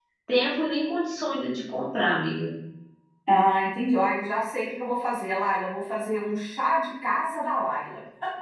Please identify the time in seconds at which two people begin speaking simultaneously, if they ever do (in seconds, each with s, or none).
none